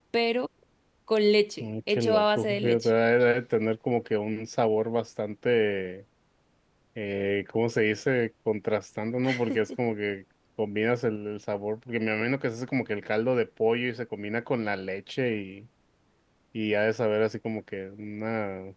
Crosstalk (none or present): present